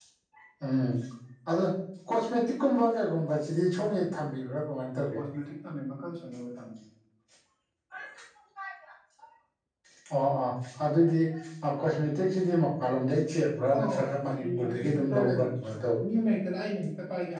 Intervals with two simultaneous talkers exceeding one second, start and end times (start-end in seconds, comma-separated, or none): 14.4-15.8